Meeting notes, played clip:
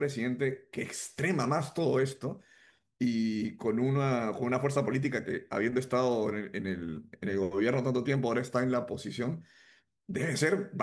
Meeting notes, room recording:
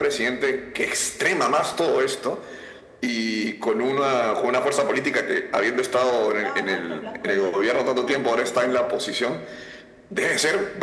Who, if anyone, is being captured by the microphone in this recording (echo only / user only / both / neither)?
both